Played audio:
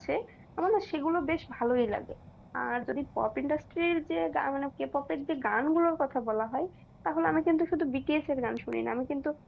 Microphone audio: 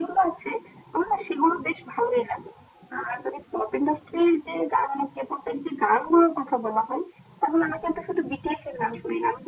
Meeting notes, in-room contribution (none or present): none